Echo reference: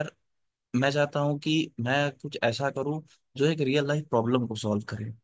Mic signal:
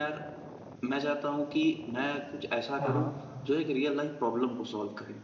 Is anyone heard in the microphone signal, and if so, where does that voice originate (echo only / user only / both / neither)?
both